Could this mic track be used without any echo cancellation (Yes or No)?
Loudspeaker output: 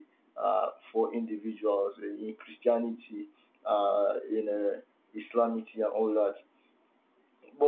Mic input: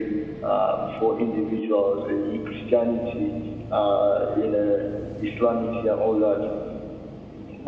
No